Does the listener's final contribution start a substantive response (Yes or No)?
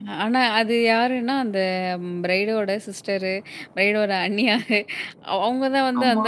No